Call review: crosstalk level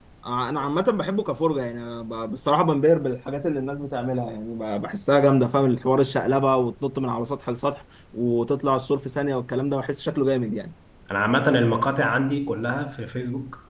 none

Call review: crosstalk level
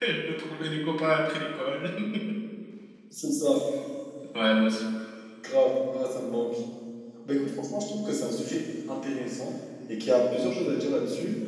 none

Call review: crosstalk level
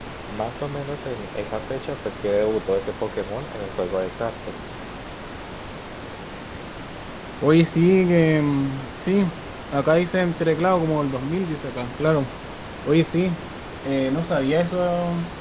none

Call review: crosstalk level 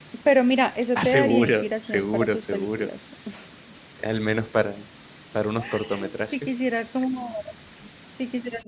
present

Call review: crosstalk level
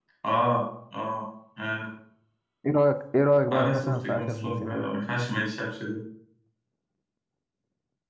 present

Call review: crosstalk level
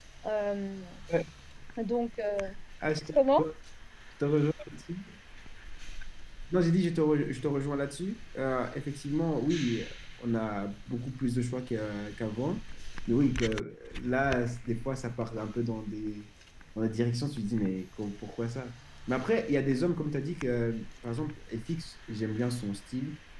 none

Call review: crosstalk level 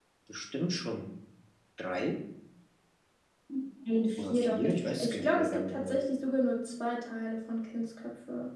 present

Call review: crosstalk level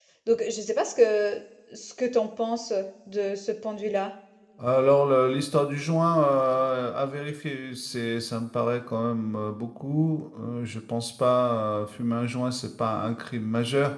none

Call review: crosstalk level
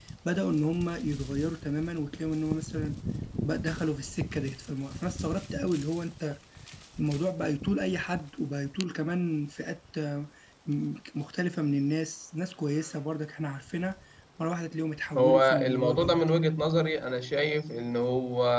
present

